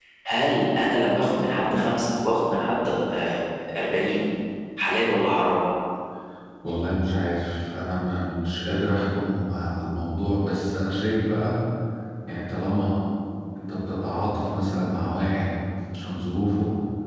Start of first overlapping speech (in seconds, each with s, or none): none